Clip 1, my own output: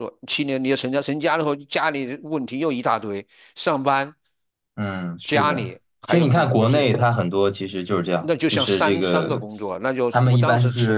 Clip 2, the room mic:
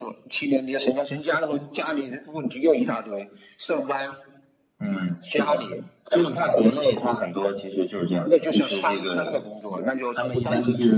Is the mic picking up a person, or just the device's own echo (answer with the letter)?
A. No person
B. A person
A